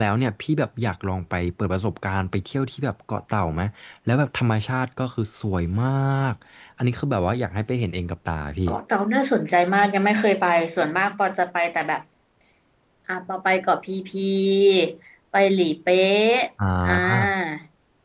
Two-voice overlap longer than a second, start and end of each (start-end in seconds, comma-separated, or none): none